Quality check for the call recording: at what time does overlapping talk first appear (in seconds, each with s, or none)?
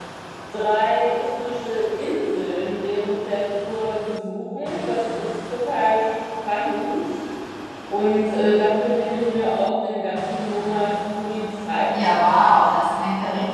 none